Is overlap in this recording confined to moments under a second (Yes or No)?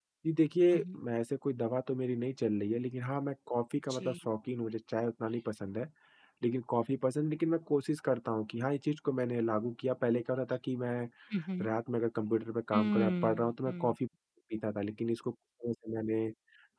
No